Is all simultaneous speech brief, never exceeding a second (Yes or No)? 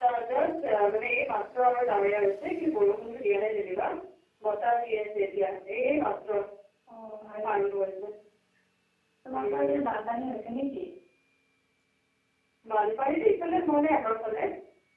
Yes